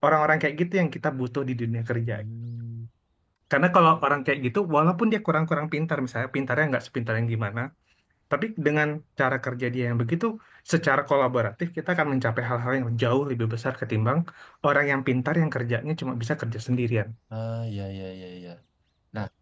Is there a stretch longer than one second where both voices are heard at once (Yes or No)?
No